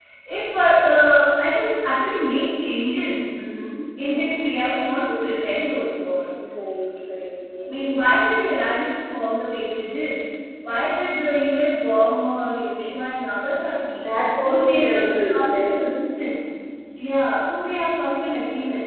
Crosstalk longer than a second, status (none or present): present